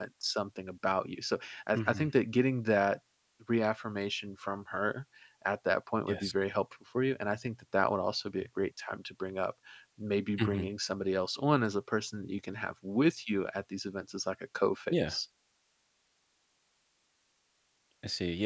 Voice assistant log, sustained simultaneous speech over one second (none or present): none